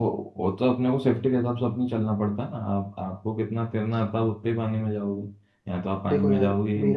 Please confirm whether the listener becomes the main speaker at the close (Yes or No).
Yes